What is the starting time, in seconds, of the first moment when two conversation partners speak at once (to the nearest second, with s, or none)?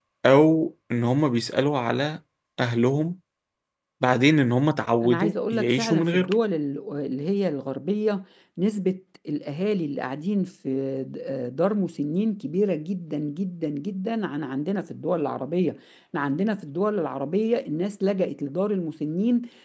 5 s